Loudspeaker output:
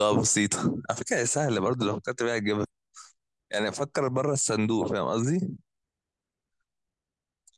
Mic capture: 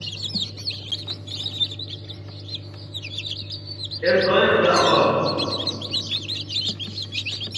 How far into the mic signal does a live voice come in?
4 s

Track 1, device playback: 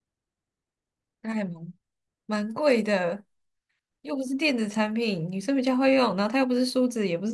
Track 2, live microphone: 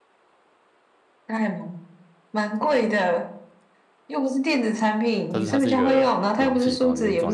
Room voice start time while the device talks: 5 s

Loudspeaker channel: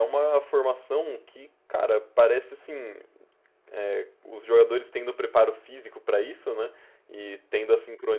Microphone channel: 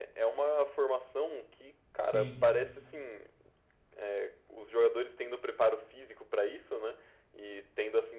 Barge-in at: 2 s

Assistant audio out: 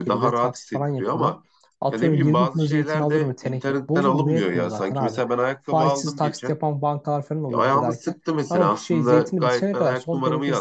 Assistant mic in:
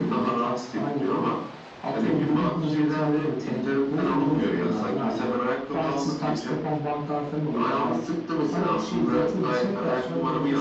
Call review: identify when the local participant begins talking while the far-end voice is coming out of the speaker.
none

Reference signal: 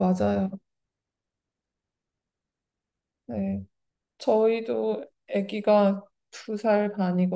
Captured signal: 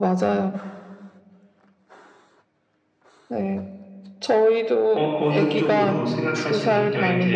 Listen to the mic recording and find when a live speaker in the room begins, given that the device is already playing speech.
5 s

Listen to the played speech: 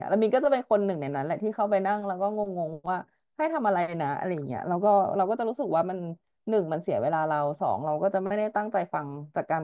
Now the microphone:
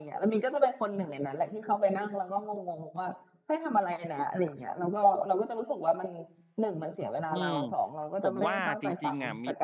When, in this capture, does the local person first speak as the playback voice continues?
7 s

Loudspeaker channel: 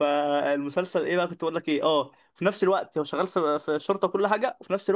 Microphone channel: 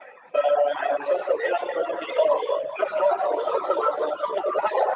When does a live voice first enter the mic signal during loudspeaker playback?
none

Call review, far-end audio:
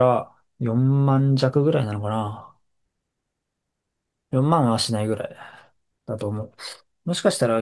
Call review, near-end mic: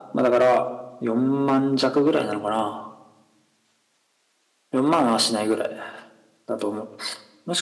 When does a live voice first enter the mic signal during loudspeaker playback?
none

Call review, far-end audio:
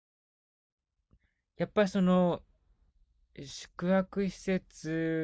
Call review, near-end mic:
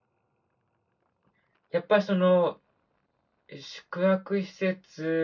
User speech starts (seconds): none

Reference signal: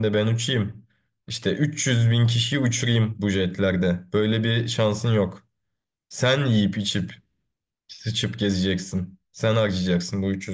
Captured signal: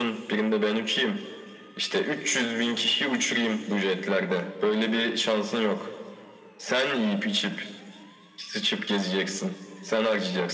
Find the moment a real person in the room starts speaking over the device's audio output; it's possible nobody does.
none

